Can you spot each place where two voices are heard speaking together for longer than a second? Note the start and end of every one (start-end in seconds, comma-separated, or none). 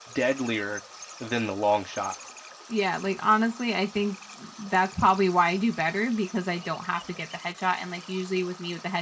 none